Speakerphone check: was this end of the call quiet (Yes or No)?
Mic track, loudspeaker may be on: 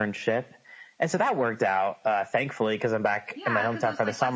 No